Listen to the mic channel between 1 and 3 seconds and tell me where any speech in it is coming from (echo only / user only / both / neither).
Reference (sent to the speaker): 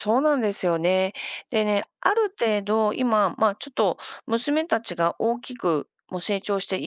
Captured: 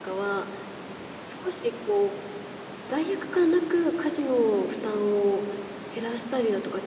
user only